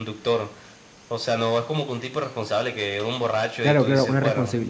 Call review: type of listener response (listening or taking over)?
taking over